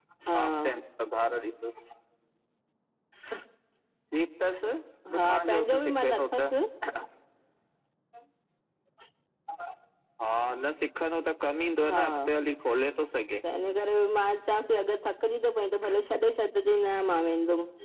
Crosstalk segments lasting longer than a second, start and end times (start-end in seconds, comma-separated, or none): 5.2-6.5